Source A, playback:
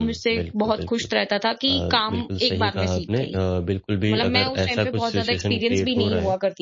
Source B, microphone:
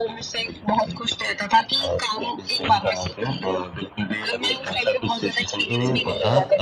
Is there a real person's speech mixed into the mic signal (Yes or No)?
Yes